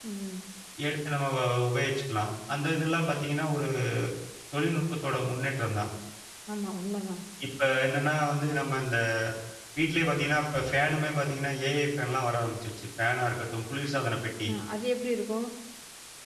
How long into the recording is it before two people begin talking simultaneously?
none

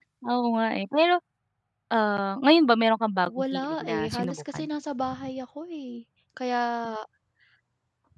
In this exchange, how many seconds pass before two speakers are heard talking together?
3.3 s

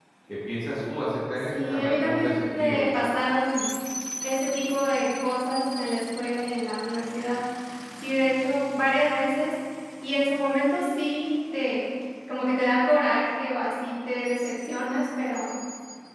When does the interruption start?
1.5 s

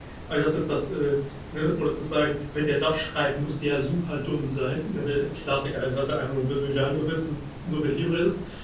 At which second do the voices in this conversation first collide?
none

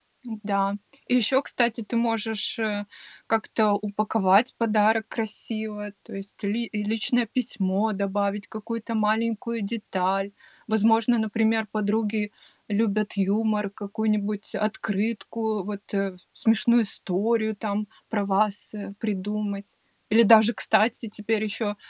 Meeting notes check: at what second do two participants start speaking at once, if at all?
none

